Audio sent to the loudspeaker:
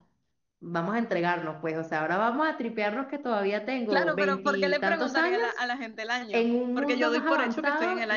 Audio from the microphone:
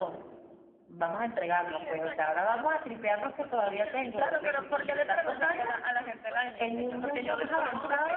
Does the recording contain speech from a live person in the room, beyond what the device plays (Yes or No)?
Yes